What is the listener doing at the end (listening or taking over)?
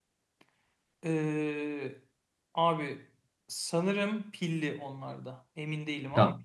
taking over